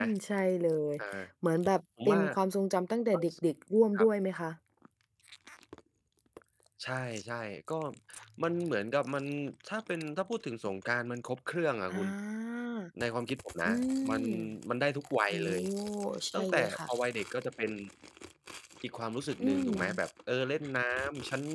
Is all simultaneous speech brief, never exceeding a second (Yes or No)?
Yes